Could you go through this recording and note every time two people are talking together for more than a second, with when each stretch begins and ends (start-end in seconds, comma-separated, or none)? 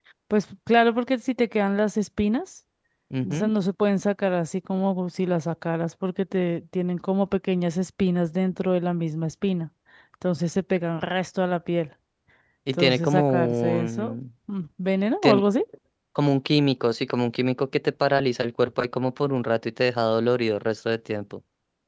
12.7-14.2